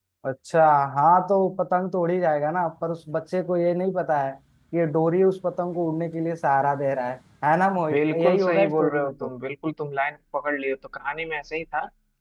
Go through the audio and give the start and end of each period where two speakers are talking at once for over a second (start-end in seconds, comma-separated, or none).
7.9-9.3